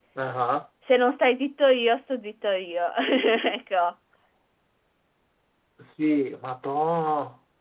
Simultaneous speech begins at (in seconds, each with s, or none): none